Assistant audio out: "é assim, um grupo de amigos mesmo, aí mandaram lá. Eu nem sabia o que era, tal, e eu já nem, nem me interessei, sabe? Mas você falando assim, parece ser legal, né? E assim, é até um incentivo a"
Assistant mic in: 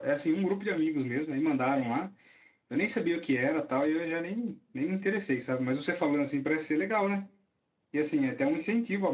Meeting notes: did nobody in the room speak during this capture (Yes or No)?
Yes